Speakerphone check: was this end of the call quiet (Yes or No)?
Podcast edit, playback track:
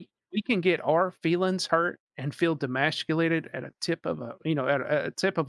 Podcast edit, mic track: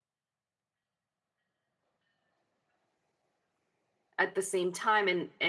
No